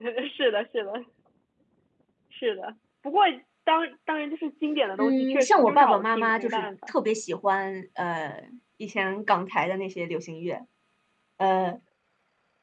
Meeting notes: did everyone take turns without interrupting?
No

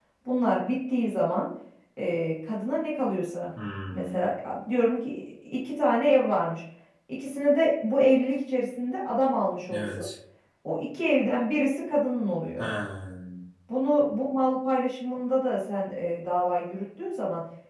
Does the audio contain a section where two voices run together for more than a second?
No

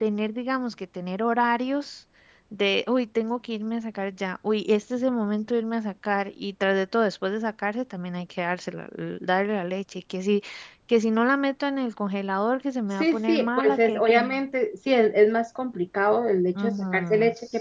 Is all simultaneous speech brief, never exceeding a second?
No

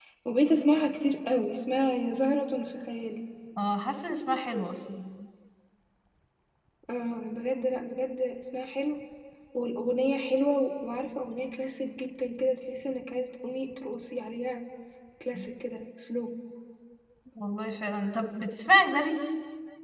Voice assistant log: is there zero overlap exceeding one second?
Yes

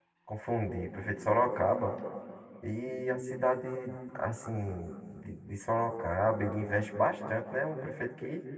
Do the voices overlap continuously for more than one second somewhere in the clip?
No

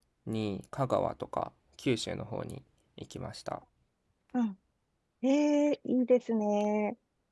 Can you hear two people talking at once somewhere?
No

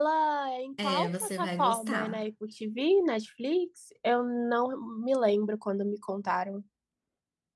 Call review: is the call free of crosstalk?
No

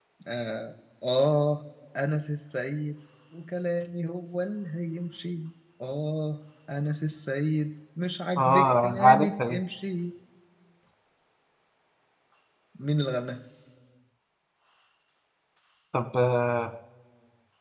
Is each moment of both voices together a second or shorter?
No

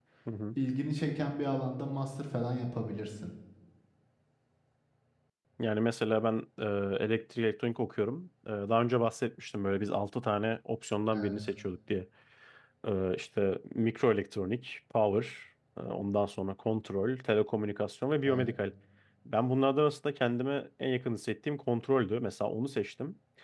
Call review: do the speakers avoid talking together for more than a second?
Yes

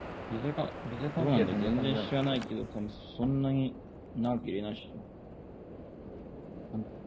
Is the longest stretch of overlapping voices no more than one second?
No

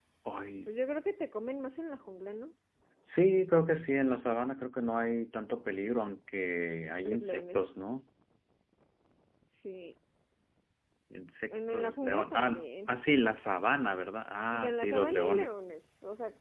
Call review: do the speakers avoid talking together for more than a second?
No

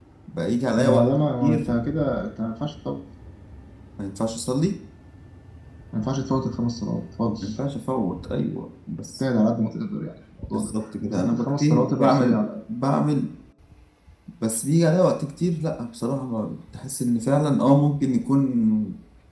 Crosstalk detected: Yes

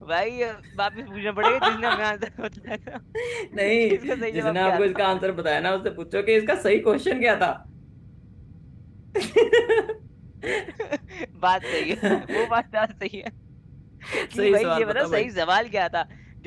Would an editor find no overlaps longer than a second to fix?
No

